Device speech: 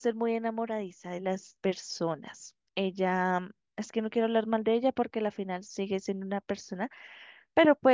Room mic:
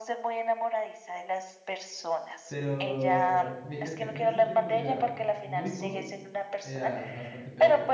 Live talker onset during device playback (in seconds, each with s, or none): 2.4 s